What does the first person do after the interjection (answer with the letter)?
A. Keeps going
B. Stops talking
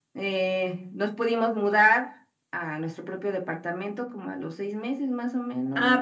B